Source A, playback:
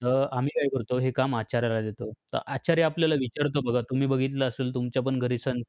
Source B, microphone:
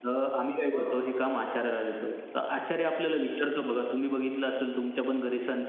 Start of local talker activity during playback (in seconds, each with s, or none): 0.7 s